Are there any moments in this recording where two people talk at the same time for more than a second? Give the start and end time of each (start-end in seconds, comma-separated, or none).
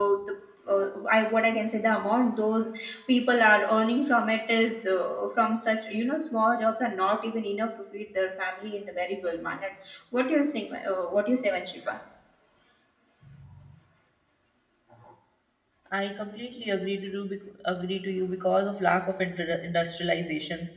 none